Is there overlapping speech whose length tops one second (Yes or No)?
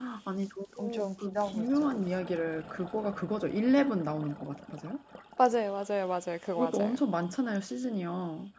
Yes